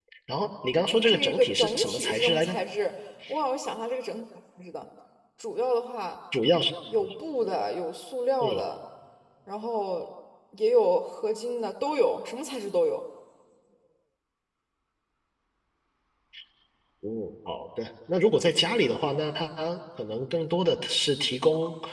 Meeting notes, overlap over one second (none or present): present